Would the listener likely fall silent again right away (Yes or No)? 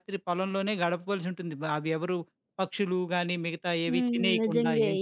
No